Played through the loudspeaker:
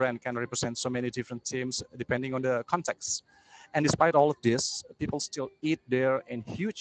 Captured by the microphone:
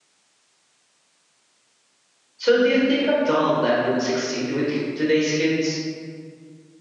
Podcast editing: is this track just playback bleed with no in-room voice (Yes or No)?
No